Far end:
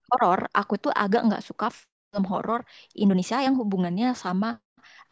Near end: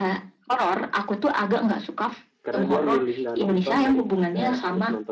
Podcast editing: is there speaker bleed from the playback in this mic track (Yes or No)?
Yes